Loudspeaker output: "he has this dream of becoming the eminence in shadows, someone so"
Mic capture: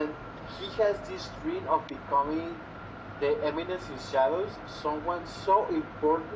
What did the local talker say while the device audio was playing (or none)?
none